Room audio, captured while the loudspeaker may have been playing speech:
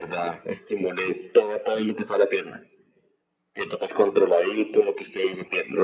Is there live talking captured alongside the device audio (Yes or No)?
No